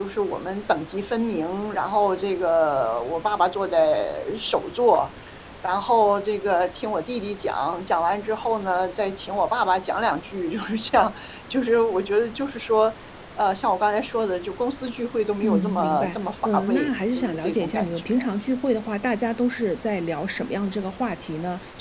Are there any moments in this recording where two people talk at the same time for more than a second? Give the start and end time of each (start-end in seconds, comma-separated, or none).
15.5-18.3